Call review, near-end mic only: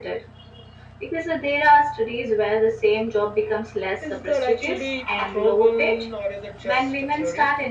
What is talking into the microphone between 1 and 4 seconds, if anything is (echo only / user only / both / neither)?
echo only